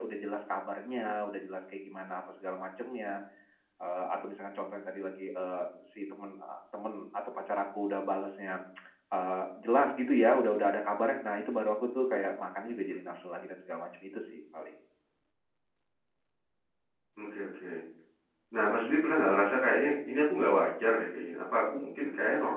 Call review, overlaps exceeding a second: none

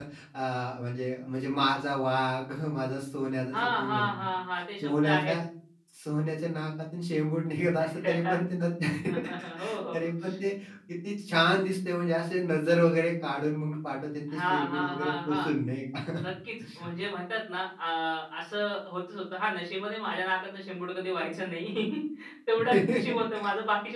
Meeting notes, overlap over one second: present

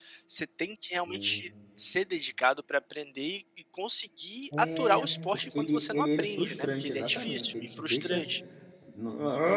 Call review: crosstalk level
present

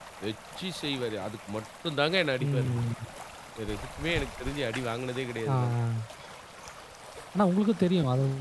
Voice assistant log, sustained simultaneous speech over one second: none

